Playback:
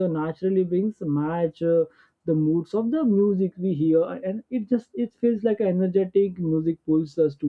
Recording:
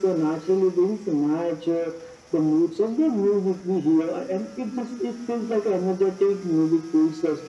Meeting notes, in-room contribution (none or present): none